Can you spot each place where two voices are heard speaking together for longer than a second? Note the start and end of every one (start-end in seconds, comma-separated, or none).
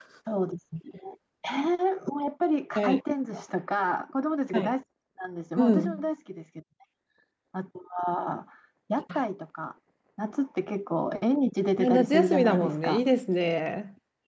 11.8-13.0